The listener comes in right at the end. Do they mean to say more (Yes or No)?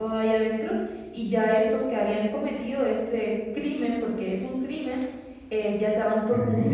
No